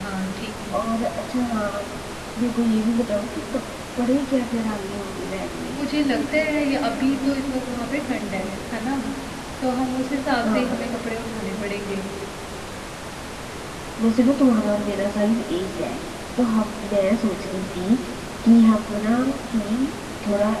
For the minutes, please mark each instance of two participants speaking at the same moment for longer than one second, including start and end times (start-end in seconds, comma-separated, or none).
none